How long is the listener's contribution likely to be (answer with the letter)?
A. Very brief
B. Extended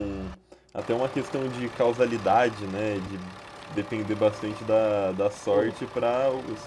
A